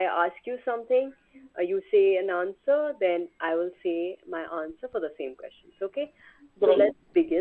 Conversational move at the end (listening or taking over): listening